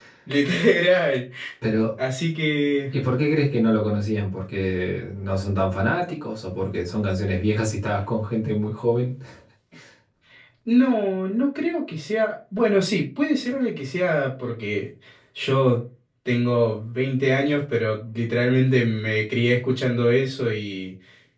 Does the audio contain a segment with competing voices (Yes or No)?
No